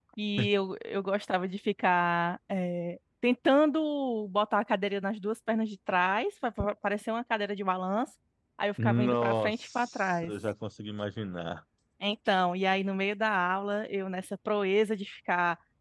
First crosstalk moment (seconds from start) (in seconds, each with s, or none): 8.8 s